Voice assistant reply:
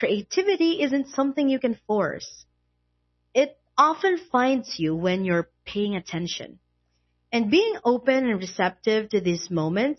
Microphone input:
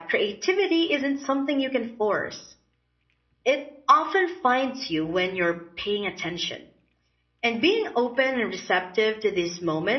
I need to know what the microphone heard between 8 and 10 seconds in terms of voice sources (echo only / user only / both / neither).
echo only